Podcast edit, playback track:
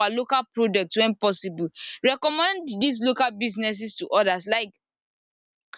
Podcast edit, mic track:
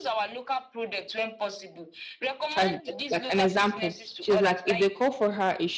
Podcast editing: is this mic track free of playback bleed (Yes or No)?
No